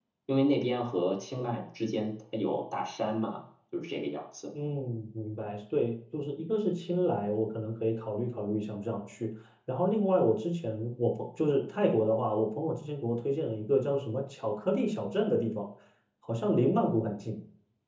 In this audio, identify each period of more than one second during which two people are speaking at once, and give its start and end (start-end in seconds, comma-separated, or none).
none